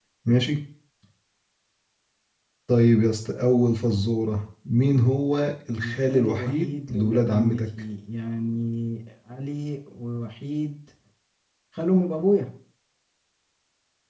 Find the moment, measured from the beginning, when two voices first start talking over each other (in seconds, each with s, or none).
5.8 s